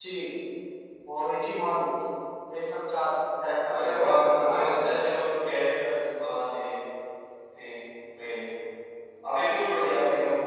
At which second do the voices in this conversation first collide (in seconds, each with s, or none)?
3.6 s